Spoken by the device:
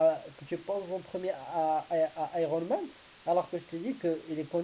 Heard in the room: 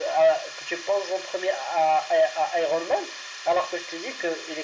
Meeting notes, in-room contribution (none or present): none